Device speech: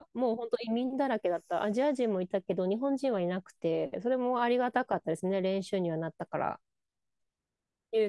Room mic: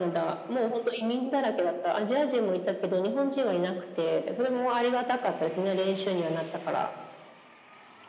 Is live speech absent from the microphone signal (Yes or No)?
Yes